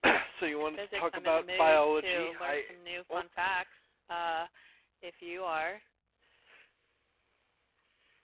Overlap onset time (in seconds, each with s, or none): 0.6 s